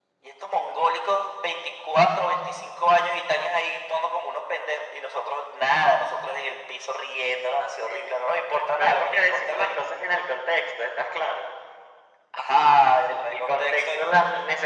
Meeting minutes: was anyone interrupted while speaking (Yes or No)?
Yes